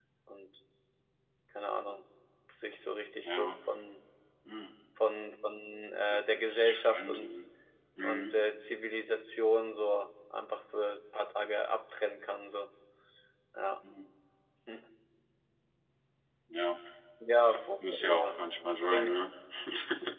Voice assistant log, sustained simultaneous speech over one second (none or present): present